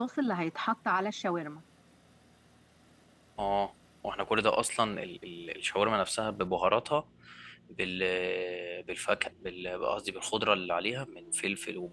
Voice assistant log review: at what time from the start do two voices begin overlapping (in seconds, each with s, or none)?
none